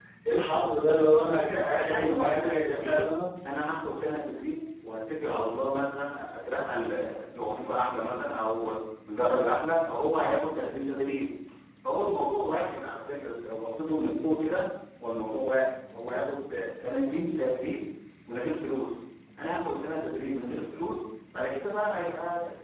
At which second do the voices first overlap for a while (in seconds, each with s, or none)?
1.2 s